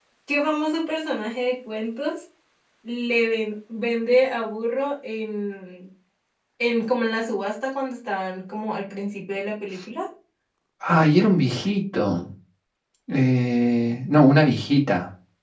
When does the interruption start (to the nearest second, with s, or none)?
none